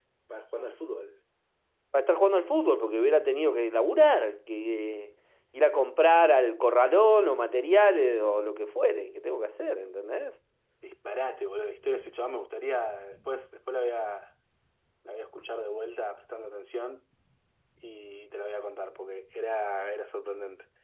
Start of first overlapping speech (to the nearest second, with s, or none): none